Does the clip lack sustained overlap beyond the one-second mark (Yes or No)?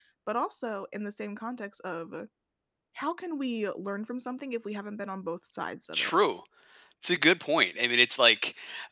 Yes